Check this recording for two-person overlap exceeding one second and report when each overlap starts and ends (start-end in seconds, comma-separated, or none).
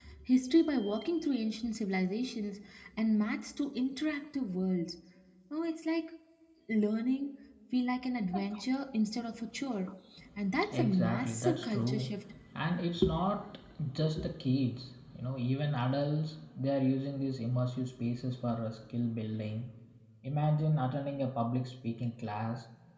10.7-12.1